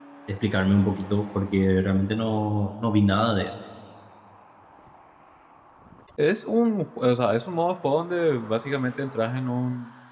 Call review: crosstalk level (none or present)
none